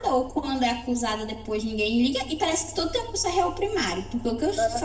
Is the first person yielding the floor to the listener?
No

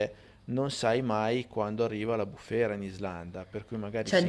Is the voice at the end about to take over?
Yes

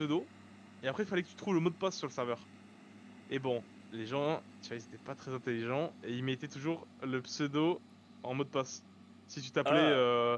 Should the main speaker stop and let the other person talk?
No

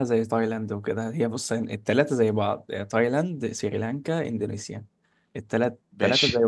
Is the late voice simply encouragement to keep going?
Yes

